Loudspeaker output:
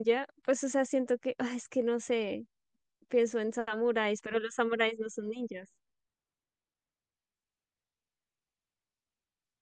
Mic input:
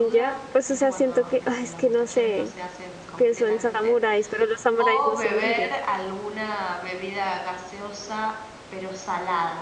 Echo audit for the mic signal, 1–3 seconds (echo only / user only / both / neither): both